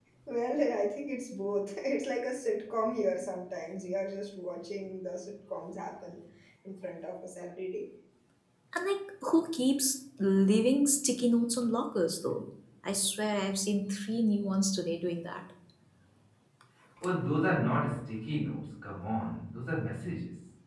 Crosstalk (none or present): none